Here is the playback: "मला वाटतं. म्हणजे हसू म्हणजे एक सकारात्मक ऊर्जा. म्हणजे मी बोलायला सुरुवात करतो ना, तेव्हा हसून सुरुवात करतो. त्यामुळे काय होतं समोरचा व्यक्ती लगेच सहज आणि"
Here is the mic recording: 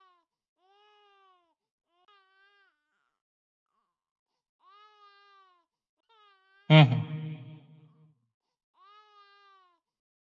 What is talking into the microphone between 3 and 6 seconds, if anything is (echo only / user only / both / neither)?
neither